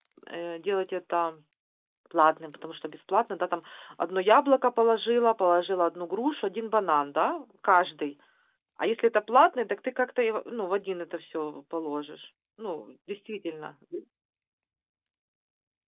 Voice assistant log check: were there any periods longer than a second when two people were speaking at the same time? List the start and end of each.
none

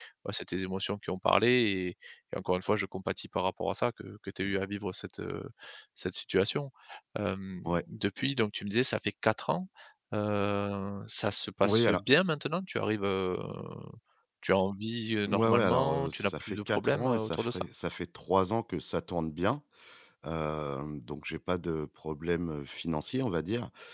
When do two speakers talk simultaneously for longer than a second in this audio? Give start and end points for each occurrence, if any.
15.3-17.6

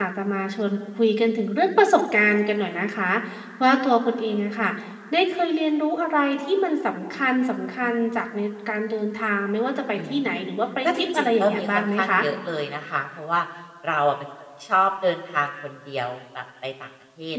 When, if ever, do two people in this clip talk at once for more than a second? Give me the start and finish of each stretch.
10.8-12.2

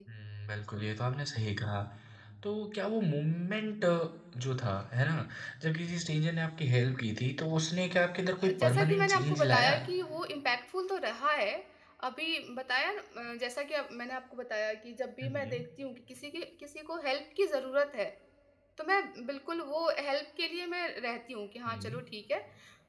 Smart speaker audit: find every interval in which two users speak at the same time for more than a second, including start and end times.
8.4-9.8

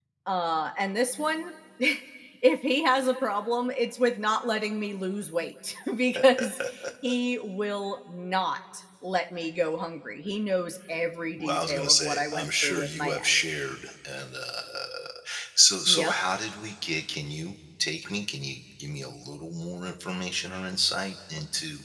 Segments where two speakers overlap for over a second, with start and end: 11.4-13.2

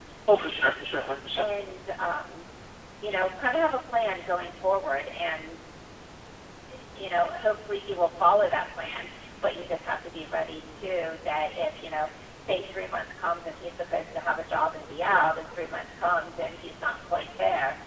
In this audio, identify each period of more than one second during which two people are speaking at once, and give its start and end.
none

